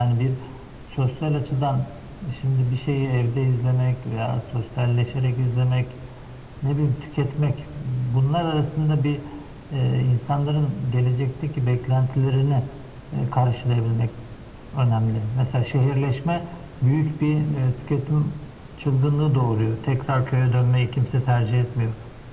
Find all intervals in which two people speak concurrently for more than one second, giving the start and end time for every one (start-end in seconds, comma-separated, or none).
none